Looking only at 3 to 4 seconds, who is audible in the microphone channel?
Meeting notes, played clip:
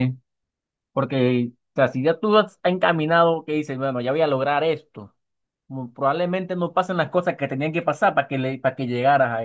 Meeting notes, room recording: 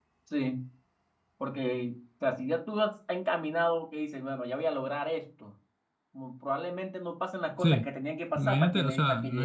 echo only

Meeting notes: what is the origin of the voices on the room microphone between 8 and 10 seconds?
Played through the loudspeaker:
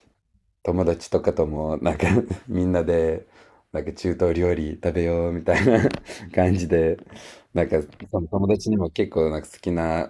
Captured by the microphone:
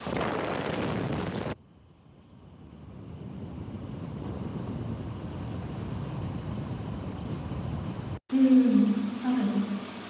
user only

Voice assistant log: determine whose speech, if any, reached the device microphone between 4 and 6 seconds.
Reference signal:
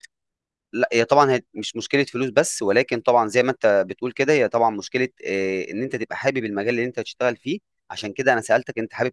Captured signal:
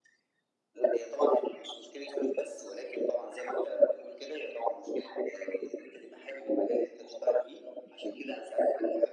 echo only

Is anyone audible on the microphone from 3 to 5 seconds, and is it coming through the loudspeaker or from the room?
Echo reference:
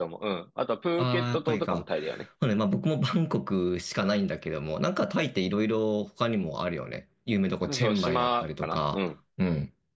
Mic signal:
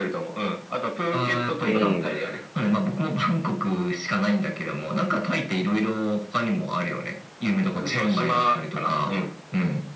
echo only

